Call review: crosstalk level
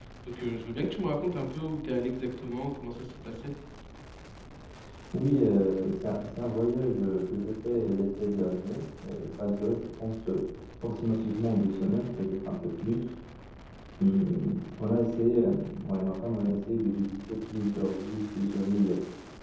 none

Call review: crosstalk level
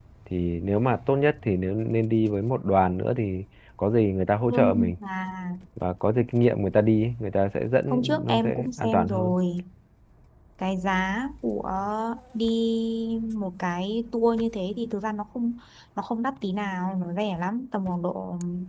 present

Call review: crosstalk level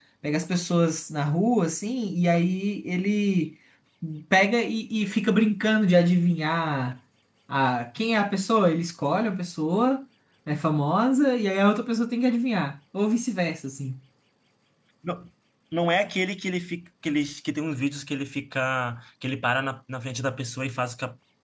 none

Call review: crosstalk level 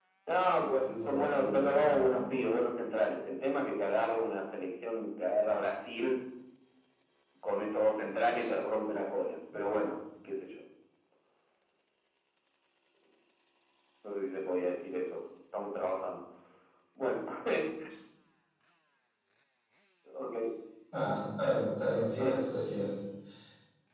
present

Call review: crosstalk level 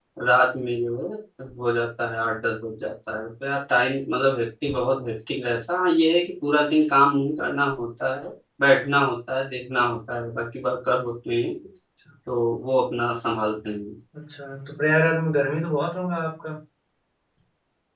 none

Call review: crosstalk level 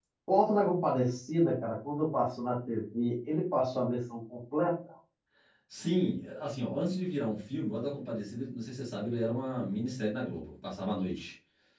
none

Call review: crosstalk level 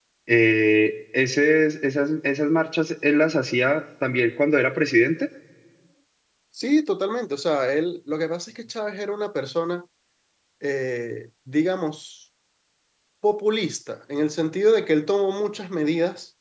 none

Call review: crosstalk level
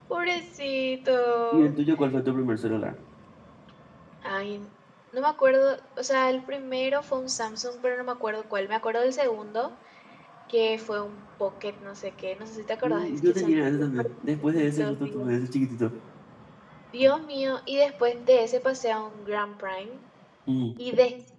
present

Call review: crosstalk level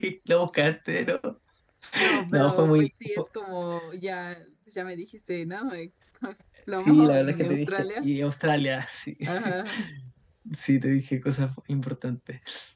present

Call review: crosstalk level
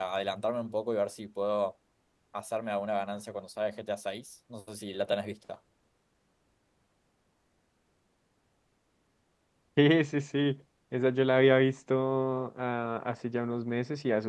none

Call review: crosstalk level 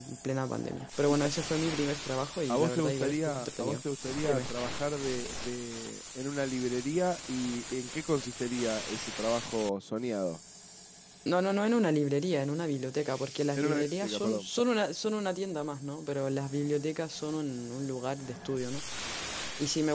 present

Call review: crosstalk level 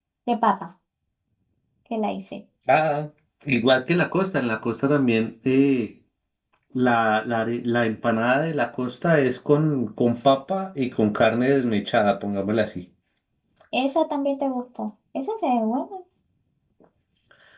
none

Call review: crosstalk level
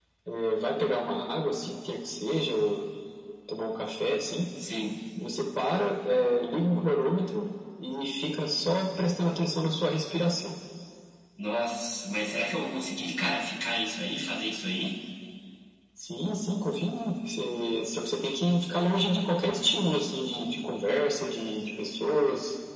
none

